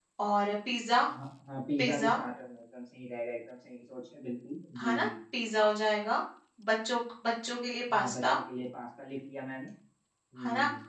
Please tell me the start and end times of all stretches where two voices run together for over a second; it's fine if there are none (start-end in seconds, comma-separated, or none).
none